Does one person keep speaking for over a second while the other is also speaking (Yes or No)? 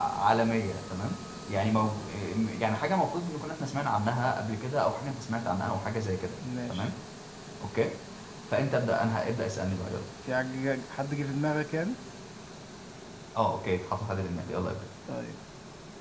No